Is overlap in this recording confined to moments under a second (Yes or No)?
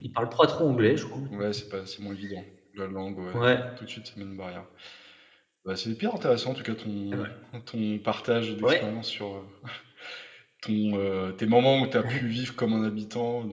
Yes